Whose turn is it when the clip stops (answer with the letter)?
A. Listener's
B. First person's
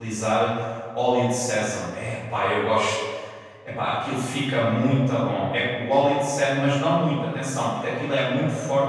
B